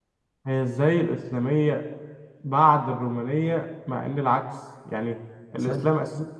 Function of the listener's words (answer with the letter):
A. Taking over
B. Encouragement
B